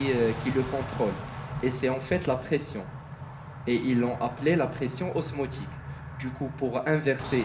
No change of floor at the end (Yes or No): Yes